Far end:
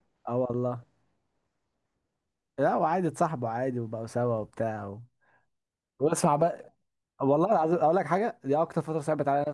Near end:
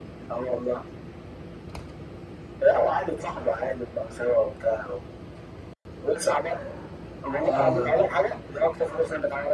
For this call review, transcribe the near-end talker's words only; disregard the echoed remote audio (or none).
اه